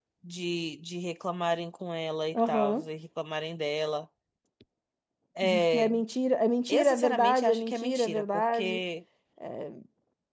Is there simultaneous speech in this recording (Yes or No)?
Yes